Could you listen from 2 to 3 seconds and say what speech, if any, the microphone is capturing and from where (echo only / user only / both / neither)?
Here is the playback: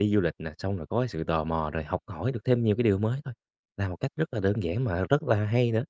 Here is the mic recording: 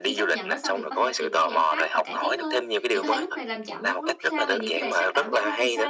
both